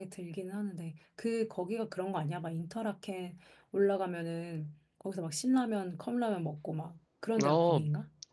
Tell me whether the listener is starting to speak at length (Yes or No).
Yes